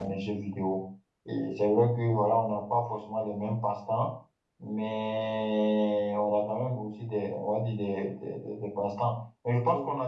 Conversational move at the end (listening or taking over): listening